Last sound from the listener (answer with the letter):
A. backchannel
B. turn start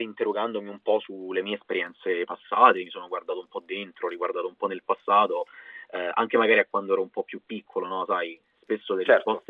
A